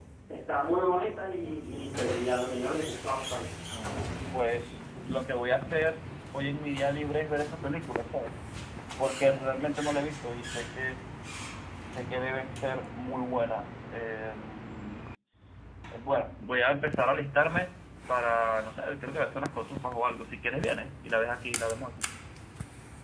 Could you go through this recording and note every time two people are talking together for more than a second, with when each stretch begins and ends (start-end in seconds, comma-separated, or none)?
none